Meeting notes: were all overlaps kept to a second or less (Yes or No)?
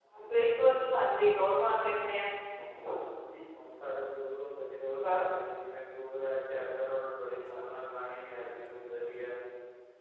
Yes